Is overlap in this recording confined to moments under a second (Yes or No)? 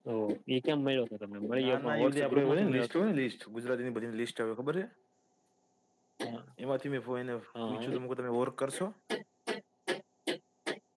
No